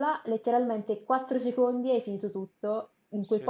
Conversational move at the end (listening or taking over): listening